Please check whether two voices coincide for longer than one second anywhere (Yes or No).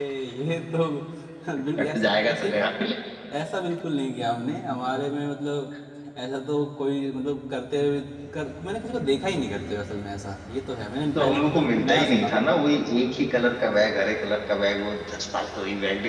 Yes